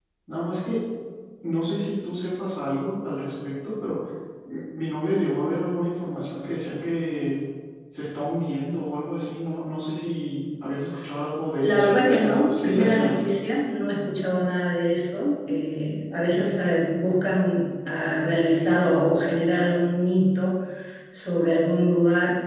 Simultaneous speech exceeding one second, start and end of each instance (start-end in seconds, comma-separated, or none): 11.6-13.2